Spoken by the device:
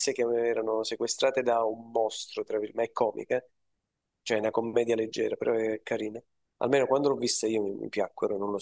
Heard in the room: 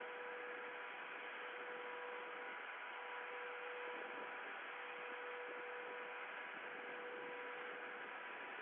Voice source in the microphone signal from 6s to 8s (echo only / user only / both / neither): neither